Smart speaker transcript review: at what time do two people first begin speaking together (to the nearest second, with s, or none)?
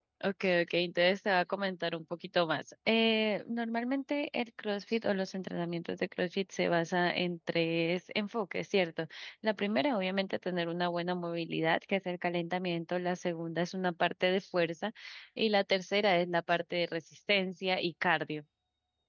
none